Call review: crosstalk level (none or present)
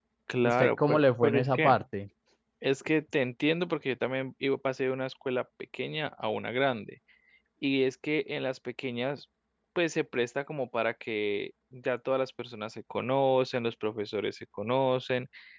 present